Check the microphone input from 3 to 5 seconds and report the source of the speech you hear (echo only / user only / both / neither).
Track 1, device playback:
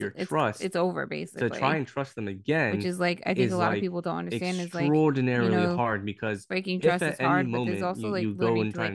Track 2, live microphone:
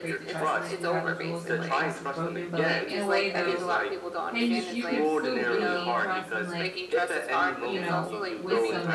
both